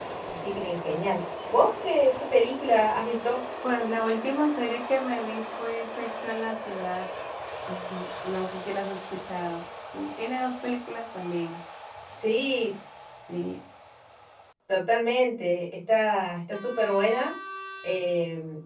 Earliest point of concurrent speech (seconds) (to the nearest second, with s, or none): none